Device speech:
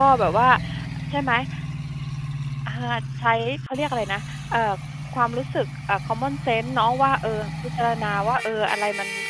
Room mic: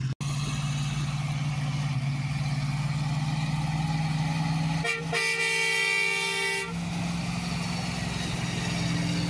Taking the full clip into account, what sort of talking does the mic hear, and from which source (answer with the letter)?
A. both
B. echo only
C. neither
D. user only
C